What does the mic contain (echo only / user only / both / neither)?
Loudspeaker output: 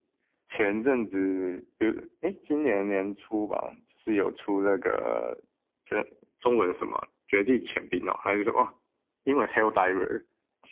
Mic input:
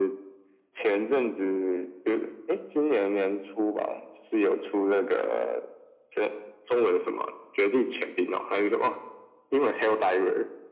echo only